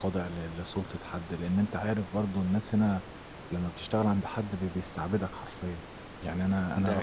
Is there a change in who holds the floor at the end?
No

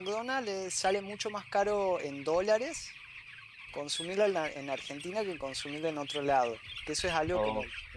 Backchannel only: Yes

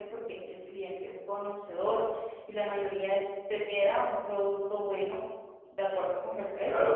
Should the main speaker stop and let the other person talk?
Yes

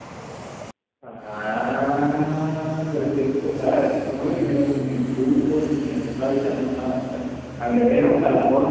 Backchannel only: Yes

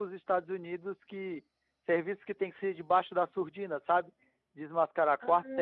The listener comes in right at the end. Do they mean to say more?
No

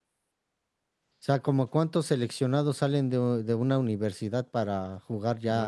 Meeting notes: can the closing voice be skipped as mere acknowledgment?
No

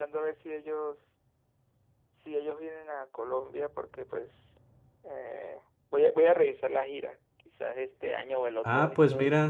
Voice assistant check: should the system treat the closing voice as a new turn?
Yes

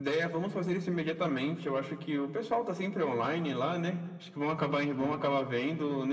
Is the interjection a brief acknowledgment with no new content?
Yes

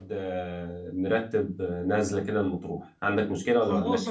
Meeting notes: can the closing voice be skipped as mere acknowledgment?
No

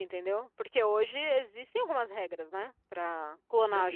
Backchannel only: No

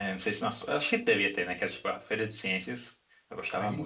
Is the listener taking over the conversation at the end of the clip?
Yes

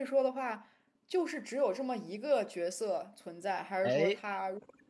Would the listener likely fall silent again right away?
Yes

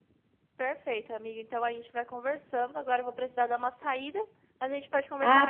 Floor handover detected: Yes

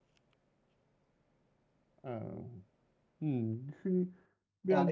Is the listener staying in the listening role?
No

